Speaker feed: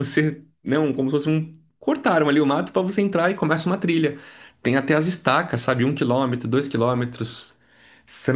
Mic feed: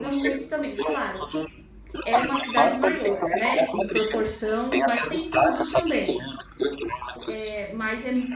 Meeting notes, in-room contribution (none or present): present